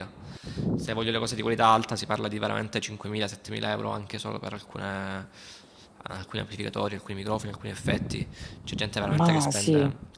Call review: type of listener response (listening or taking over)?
listening